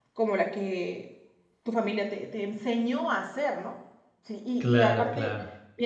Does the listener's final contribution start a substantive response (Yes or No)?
No